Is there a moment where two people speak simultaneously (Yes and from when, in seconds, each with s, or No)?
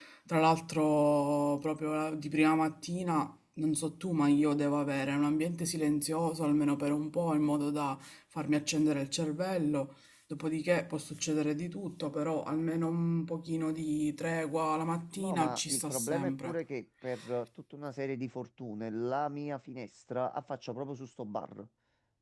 Yes, from 15.2 s